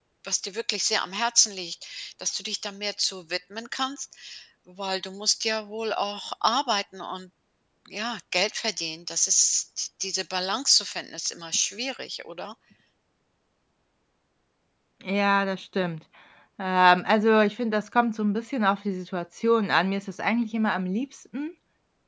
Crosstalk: none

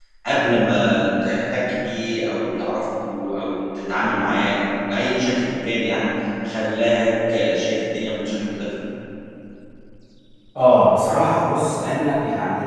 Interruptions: none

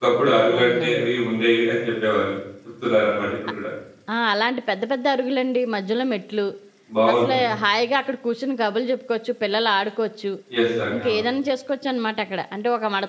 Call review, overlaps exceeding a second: none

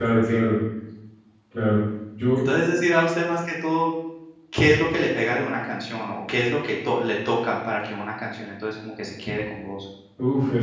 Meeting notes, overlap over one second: none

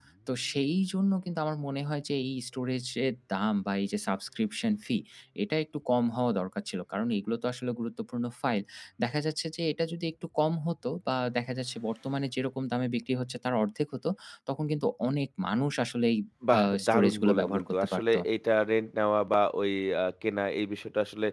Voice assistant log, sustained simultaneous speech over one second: present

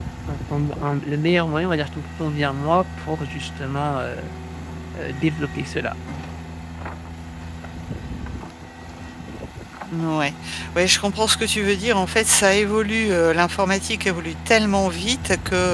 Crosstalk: none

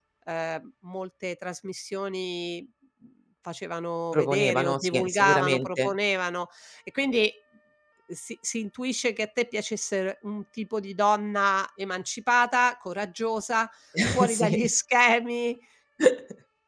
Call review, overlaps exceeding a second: present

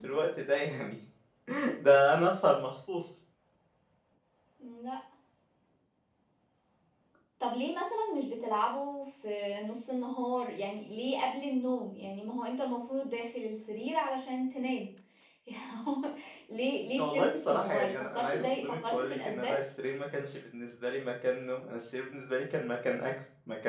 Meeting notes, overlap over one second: present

